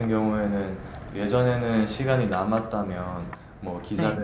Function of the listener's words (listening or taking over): listening